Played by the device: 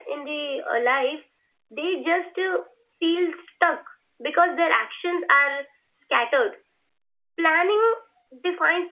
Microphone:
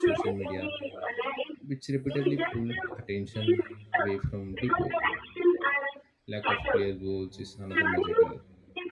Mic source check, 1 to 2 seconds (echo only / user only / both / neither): both